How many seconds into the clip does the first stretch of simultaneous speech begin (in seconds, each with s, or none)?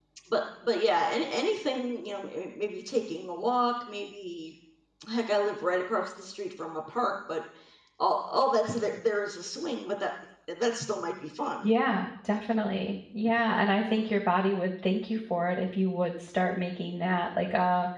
none